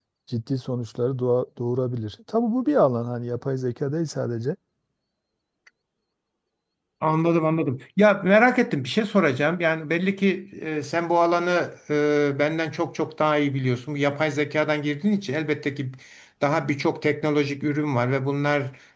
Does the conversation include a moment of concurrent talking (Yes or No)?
No